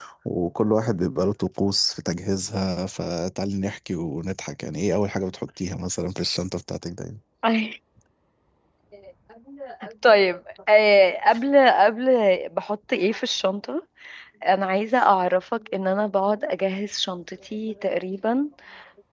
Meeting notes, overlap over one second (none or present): none